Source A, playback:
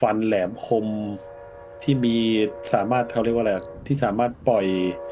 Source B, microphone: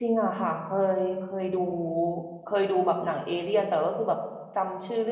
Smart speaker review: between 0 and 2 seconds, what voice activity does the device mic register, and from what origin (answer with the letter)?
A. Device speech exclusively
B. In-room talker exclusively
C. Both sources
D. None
B